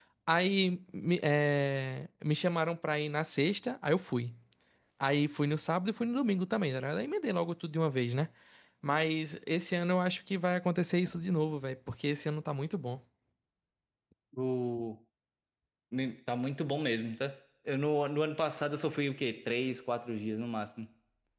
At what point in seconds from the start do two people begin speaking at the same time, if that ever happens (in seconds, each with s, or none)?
none